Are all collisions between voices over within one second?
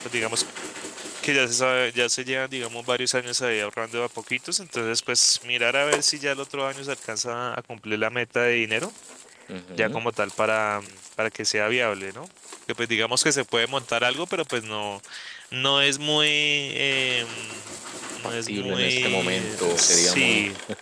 No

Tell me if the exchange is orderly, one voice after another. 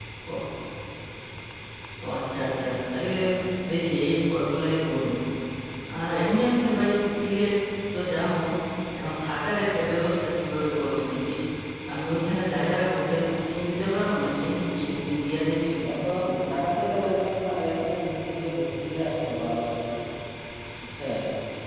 Yes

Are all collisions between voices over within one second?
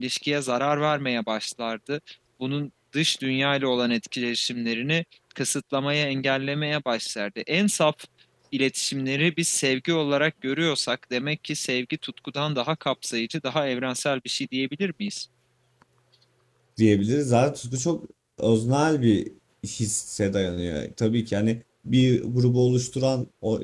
Yes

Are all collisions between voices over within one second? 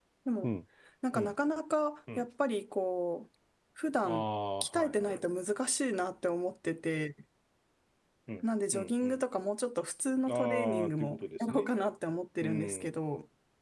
No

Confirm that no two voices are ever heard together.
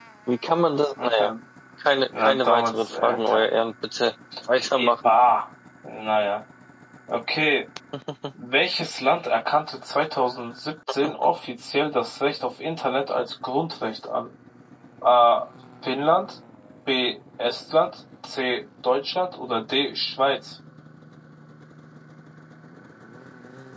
No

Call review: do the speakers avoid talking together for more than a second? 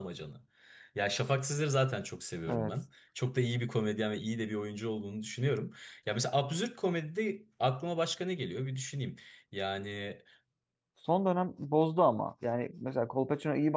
Yes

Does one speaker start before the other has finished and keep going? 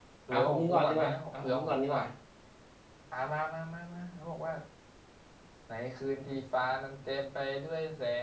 Yes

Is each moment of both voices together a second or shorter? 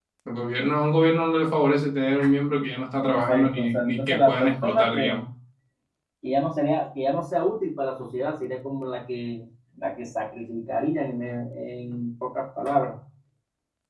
No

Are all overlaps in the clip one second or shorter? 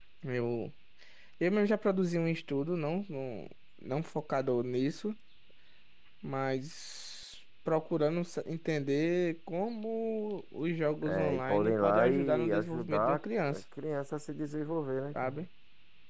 No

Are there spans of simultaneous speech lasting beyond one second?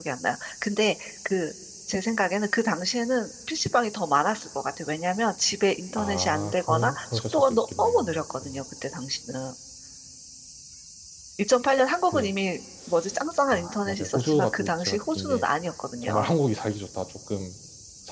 Yes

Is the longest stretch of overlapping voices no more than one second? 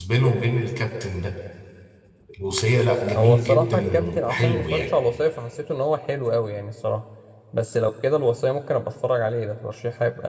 No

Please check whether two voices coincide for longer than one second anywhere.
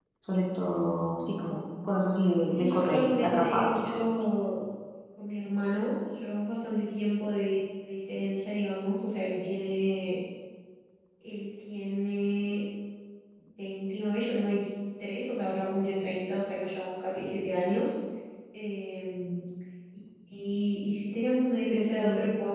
Yes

